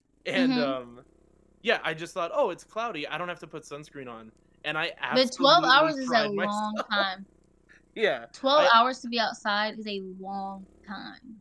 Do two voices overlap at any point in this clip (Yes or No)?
Yes